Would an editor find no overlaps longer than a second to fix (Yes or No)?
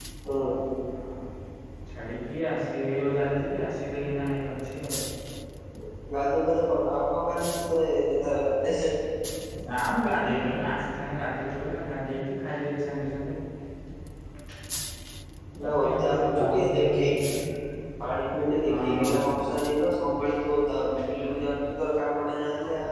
No